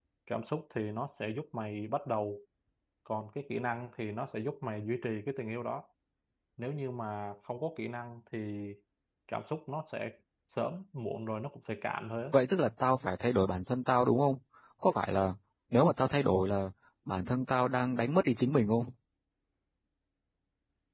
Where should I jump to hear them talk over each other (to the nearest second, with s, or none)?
none